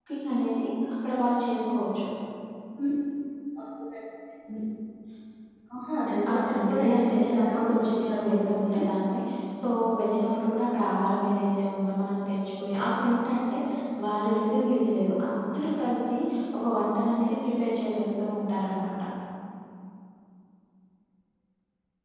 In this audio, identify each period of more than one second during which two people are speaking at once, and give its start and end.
6.3-8.8

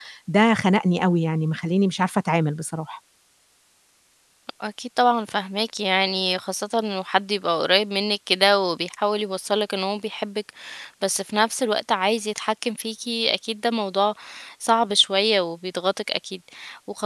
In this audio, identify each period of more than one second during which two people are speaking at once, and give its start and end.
none

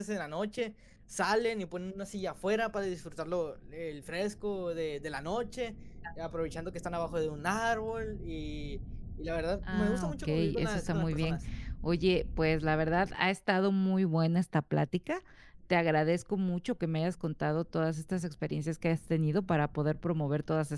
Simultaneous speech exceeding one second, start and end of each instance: 9.7-11.4

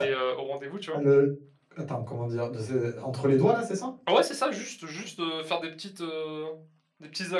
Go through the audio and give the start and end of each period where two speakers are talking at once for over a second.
none

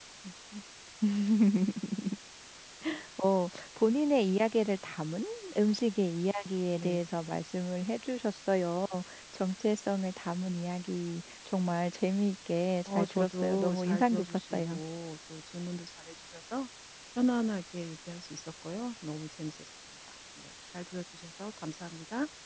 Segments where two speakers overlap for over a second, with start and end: 12.9-14.8

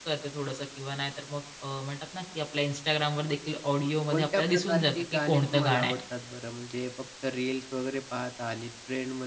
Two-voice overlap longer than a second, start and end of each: 4.1-5.9

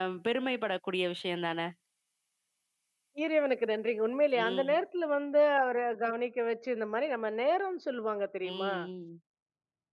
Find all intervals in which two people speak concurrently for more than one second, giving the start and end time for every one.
none

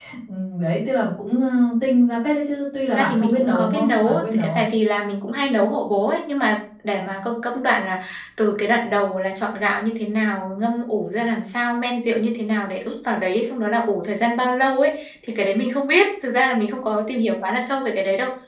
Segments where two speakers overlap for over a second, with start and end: 2.9-4.7

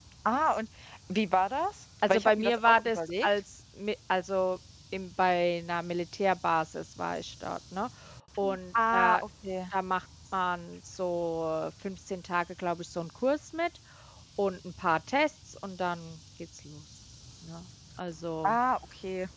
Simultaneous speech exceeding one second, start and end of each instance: 2.1-3.3

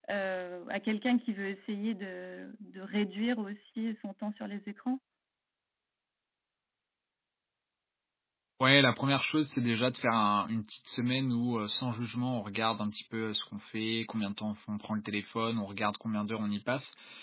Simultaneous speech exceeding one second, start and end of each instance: none

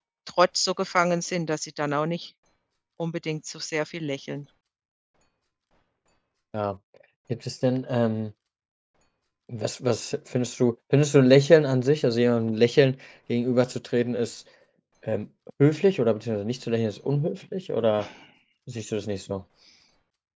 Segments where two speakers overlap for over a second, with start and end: none

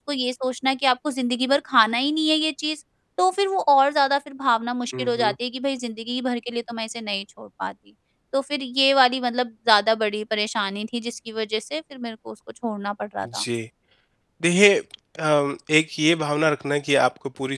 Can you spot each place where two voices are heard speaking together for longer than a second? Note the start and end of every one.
none

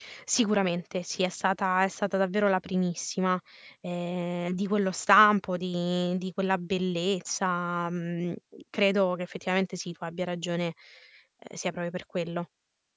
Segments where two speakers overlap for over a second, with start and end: none

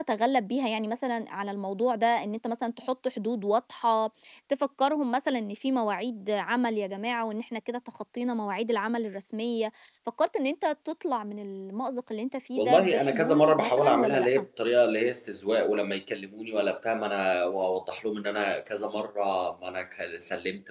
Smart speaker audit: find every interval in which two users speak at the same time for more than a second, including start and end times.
12.6-14.4

